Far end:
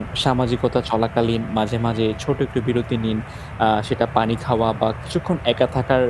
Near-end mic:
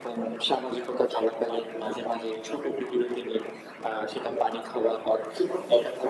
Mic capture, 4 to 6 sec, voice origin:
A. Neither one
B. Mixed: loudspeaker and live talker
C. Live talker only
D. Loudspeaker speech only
D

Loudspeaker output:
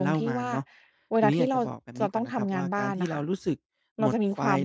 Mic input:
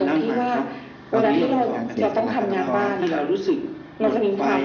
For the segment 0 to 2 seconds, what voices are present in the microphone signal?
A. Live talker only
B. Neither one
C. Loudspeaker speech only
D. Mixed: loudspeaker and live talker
D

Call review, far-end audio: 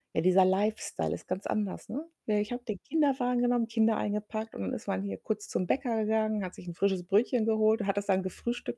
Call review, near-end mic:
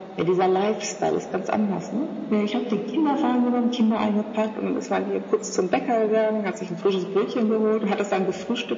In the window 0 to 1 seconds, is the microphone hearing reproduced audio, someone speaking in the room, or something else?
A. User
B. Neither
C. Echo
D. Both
C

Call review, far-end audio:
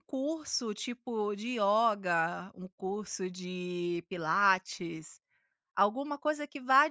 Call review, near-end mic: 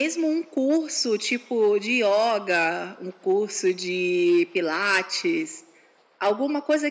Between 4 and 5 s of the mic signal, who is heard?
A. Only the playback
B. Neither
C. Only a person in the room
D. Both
A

